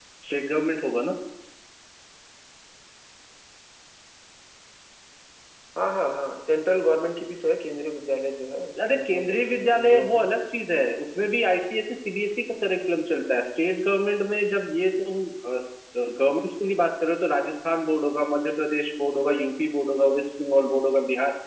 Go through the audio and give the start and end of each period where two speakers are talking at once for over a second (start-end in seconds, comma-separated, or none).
8.9-10.2